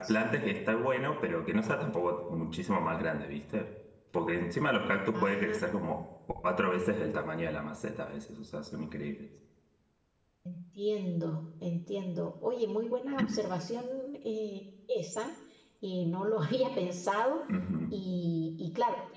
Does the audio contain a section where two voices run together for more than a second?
No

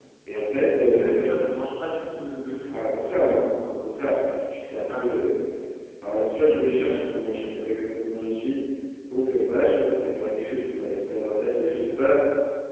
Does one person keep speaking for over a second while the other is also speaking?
Yes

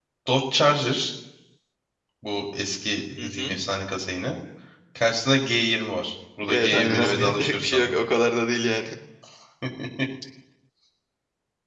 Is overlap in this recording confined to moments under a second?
No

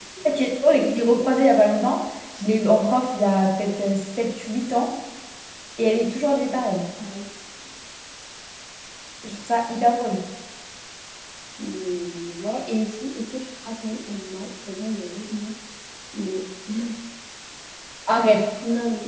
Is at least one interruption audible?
No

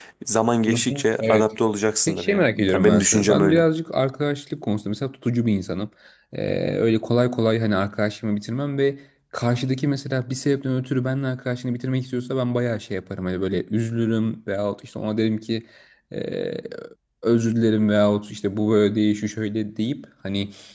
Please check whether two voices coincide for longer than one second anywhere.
Yes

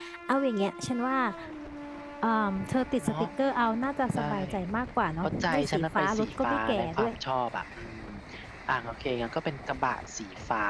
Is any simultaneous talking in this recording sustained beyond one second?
Yes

